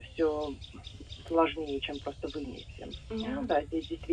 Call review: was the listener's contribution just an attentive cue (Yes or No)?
Yes